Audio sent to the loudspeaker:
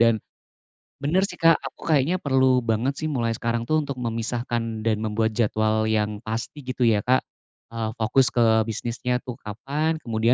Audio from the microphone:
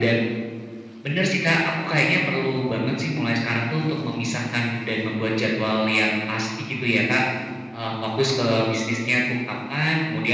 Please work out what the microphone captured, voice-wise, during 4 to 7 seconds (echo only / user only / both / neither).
echo only